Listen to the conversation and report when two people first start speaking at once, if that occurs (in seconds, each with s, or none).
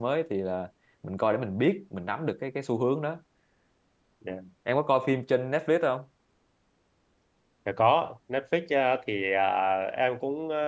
none